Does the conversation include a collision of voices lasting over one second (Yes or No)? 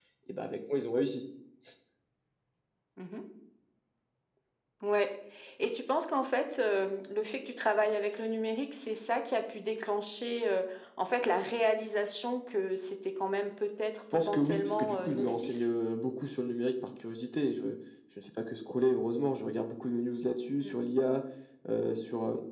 Yes